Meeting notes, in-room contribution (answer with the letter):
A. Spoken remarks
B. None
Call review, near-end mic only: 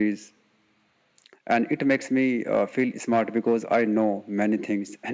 B